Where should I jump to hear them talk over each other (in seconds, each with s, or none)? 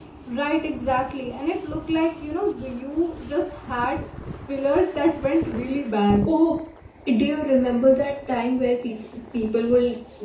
none